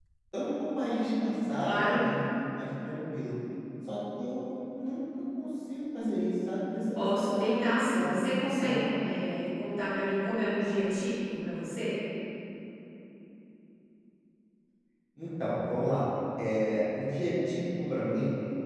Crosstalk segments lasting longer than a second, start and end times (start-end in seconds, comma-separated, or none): 7.0-8.9